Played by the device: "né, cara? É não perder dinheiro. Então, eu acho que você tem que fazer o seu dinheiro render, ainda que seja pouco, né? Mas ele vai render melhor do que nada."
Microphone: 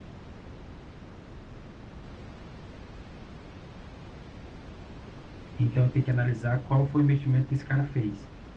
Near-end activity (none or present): present